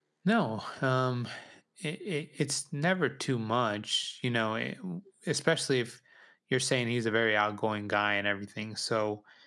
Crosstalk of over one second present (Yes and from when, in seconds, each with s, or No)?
No